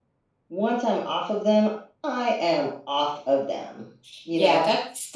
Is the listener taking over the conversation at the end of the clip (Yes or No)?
Yes